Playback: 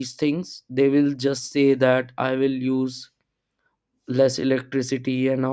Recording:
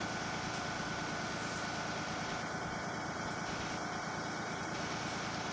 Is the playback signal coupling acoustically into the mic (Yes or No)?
No